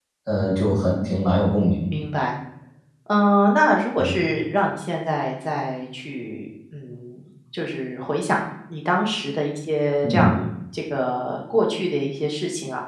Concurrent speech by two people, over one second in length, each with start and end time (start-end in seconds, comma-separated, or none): none